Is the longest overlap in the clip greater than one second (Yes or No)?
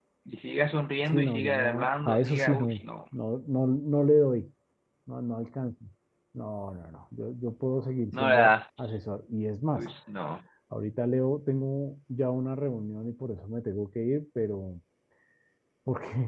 Yes